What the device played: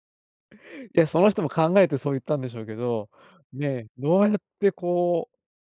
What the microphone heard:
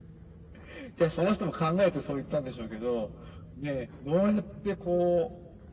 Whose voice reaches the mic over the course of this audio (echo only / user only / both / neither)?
echo only